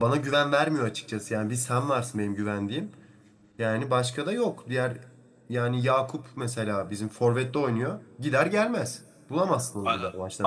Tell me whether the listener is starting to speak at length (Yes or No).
Yes